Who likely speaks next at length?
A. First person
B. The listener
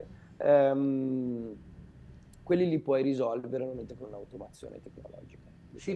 B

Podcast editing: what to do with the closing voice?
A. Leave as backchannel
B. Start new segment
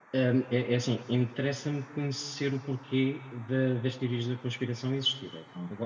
A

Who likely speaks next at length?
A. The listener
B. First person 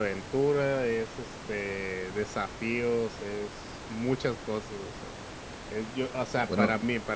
B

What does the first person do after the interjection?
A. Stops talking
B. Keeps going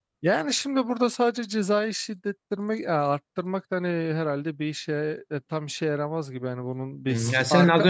A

